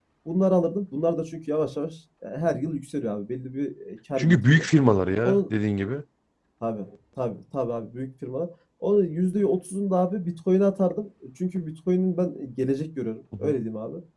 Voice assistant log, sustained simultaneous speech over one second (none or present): none